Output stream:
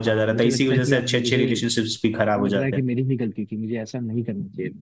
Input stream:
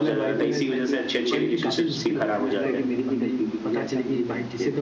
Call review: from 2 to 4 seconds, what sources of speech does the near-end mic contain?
both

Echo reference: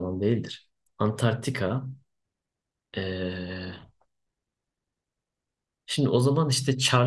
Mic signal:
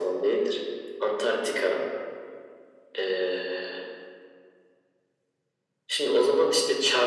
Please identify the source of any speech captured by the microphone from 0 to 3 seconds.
echo only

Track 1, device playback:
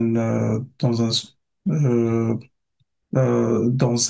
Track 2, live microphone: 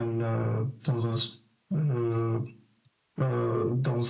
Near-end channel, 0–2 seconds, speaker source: echo only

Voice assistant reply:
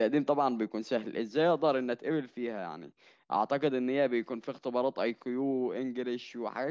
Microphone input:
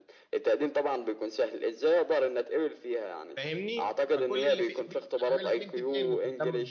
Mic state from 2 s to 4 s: both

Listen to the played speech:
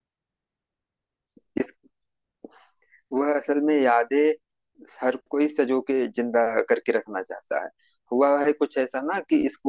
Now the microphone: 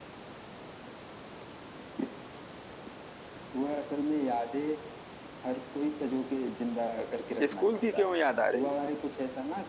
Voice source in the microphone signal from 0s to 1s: neither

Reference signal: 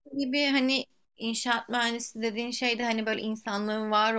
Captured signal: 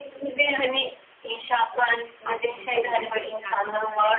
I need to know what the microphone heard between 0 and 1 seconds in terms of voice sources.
echo only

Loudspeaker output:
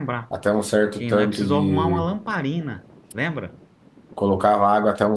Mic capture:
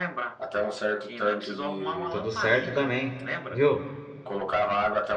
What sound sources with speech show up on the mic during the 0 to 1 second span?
echo only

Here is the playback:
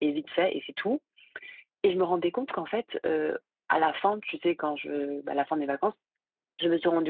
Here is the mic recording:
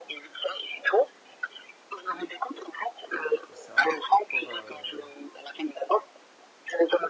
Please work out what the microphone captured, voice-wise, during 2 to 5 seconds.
both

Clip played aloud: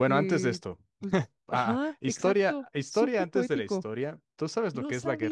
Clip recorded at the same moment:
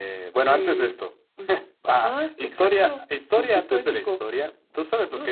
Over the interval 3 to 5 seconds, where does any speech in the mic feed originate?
echo only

